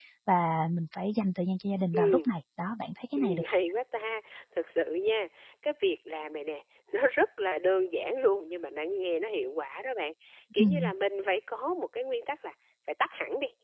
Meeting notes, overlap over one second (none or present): none